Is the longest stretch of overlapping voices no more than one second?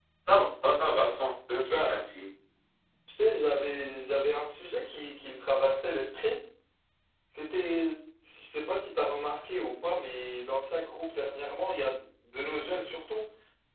Yes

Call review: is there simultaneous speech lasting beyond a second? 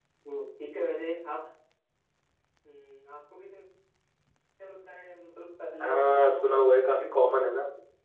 Yes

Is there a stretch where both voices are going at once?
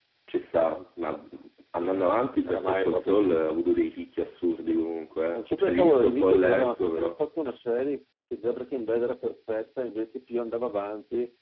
Yes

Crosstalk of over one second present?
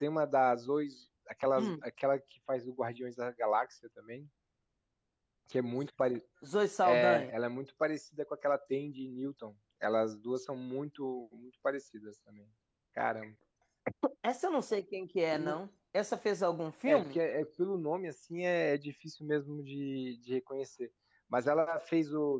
No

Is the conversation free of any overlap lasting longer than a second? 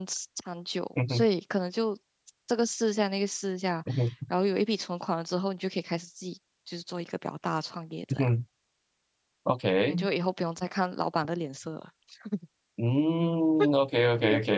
Yes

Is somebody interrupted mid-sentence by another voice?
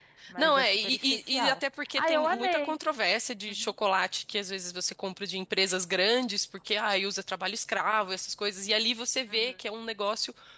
Yes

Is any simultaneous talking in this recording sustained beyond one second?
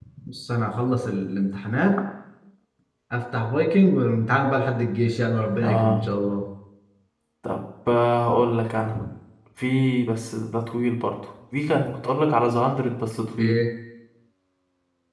No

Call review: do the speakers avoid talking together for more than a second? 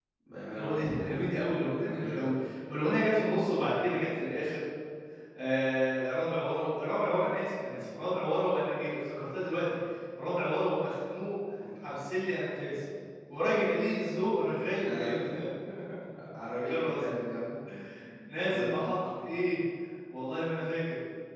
No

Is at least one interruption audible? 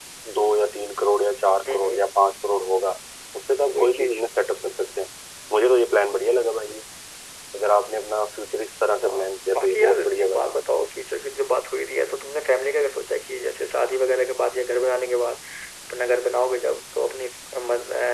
Yes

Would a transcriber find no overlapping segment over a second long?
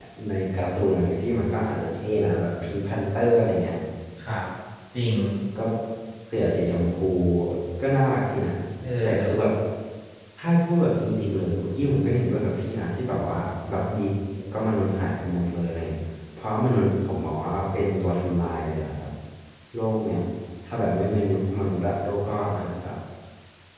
Yes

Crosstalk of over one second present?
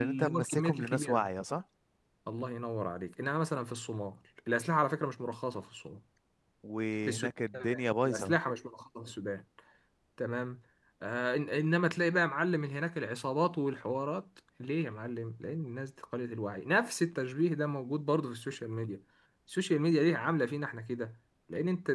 Yes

